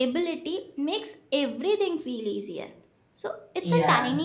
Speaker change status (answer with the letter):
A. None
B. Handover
A